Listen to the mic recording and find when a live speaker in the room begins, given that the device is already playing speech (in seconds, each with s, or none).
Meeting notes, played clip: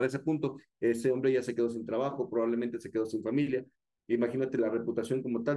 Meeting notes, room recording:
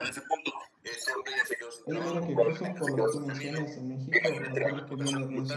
1.8 s